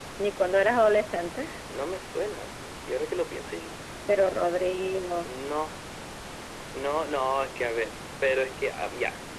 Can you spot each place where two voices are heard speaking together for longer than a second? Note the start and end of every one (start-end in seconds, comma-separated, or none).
none